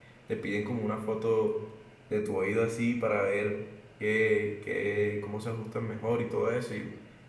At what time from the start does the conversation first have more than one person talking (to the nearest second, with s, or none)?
none